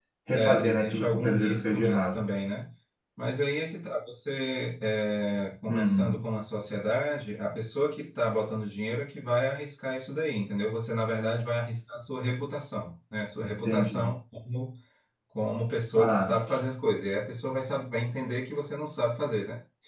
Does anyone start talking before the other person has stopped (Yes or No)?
Yes